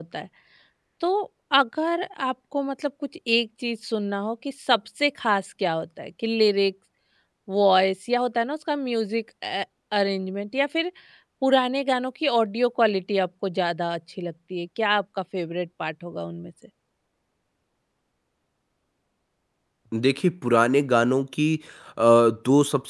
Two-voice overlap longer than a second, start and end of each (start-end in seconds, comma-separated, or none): none